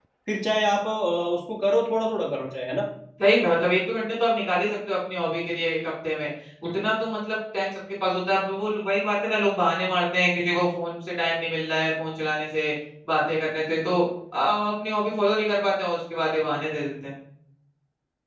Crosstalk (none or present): none